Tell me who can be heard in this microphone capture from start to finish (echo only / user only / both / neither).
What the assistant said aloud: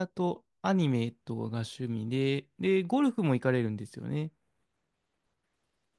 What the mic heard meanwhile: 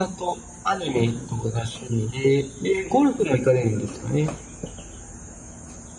echo only